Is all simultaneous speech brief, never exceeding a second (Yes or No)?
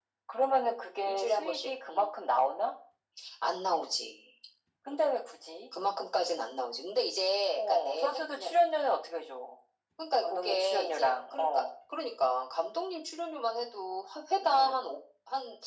No